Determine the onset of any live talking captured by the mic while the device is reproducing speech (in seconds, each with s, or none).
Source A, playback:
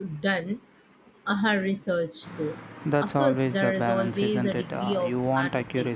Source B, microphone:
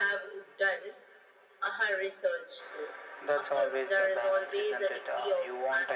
none